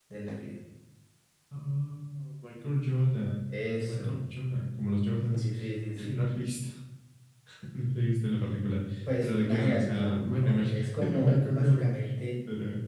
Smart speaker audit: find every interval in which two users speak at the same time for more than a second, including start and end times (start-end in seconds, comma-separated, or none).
9.2-11.9